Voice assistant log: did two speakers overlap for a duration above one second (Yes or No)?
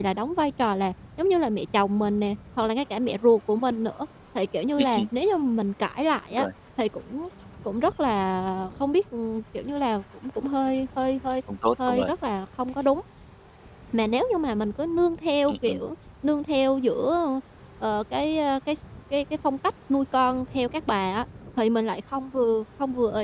No